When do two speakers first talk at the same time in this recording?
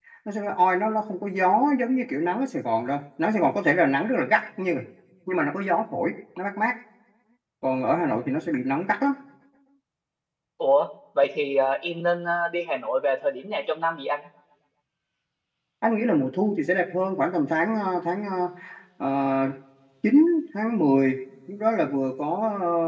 none

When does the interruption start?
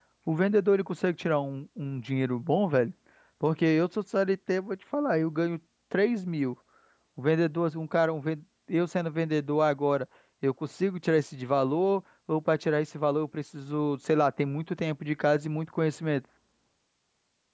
none

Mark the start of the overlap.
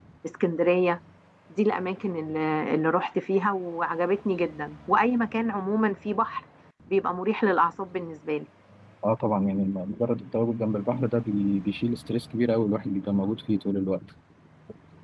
none

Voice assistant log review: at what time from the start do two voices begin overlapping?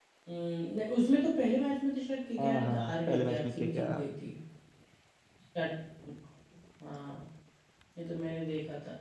2.4 s

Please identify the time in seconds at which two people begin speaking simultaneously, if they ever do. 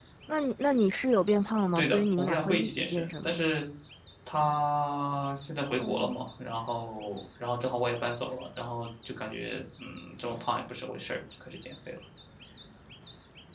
1.8 s

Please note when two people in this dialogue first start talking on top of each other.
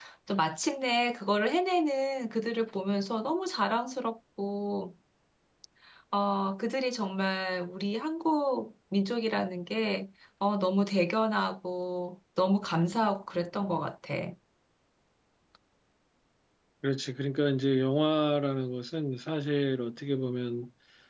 none

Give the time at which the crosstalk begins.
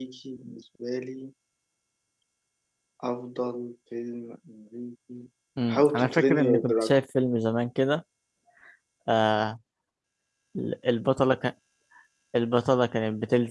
5.7 s

